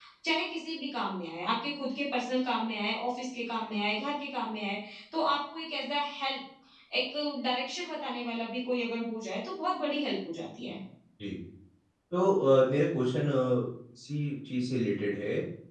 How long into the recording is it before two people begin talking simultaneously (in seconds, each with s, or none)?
none